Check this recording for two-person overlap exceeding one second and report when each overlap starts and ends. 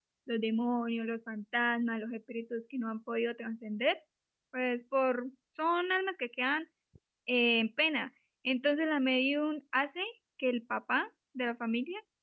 none

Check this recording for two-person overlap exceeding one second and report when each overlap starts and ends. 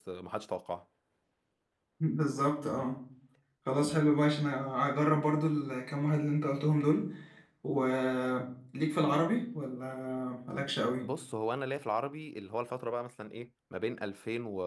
none

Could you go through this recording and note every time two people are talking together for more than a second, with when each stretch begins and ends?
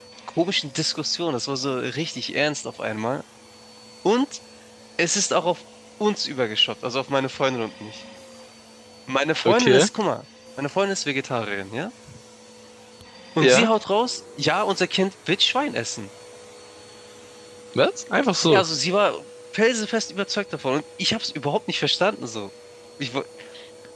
none

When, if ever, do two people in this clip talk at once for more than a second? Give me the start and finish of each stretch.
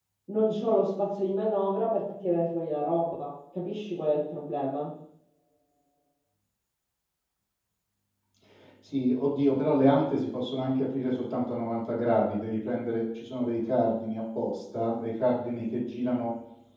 none

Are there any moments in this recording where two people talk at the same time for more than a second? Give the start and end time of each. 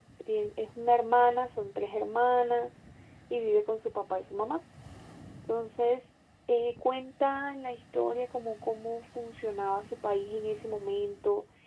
none

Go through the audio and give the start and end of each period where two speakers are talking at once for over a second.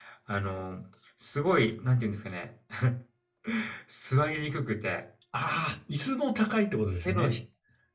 none

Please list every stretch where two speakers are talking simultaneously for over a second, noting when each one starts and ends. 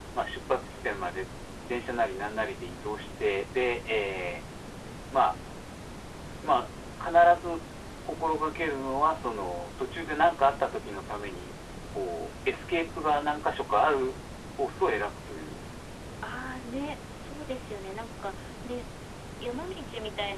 none

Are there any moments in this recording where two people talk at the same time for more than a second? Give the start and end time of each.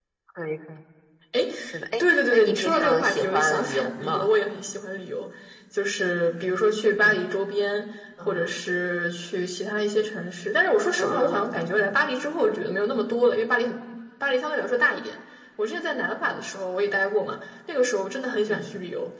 2.0-4.3

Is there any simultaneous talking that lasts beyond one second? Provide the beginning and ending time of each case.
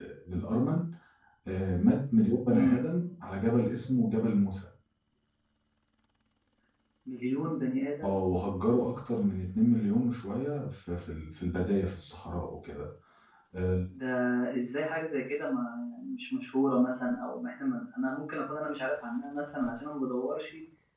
none

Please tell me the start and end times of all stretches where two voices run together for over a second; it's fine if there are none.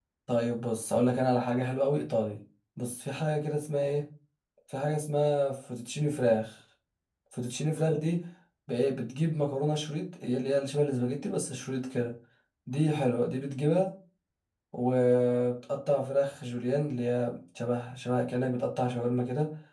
none

